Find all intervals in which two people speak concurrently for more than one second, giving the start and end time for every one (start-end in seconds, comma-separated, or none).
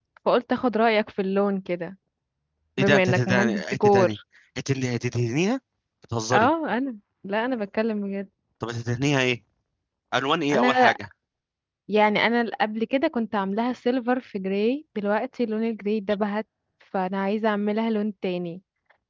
2.8-4.2